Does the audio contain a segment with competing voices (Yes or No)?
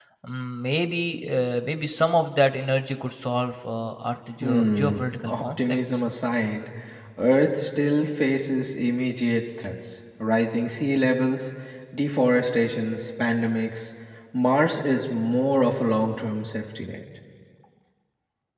Yes